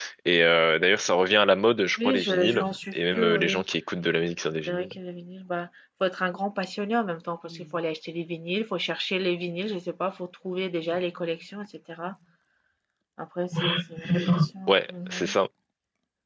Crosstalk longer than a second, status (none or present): present